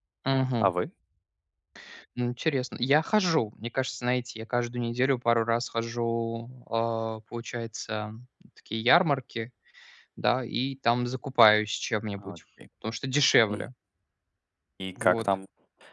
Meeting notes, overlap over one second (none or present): none